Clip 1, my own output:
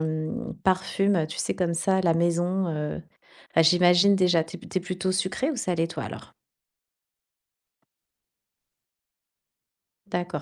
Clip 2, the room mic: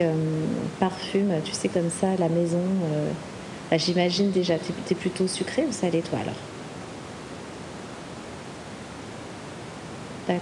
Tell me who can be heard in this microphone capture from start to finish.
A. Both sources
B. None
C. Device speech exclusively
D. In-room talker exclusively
C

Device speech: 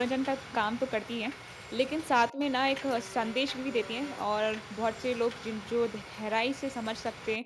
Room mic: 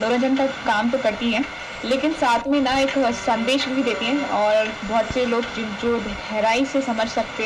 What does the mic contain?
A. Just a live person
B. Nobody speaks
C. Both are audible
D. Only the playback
D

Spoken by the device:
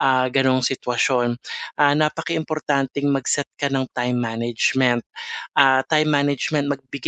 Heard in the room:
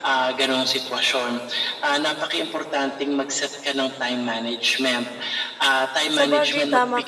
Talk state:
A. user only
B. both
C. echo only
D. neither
B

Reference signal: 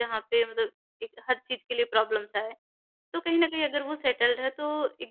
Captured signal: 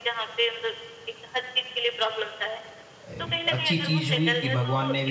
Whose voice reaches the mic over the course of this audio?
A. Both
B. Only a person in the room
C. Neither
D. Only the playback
A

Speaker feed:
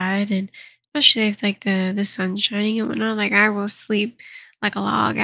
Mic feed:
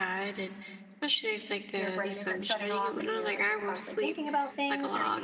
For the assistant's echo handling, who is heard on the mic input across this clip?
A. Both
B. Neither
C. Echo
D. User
A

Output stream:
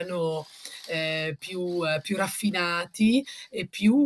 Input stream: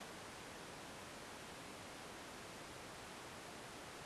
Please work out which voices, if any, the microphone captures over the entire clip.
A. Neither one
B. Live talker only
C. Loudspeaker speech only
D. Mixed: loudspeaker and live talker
A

